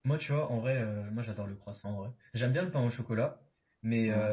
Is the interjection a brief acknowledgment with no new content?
Yes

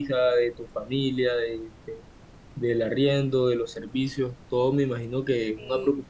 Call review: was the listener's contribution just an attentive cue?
Yes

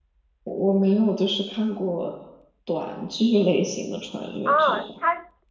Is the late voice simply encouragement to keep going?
No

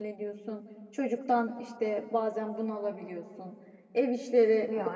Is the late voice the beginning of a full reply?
No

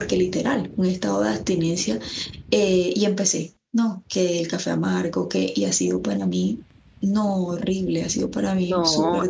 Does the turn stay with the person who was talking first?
No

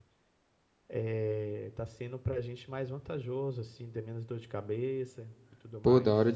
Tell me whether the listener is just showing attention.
No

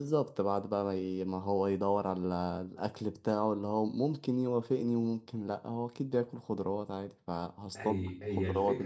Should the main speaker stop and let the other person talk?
Yes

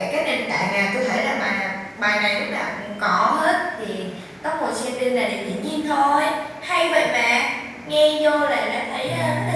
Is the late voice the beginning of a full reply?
No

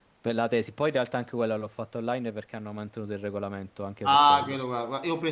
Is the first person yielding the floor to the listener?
Yes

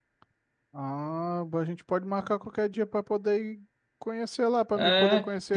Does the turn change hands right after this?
Yes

